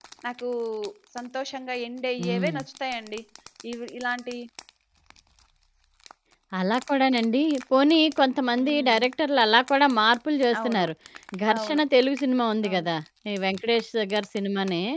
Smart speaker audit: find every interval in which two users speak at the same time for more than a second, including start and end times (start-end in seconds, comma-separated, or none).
none